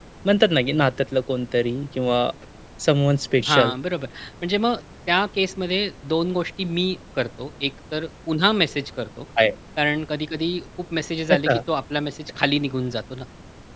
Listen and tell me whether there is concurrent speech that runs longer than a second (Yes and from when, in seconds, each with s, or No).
No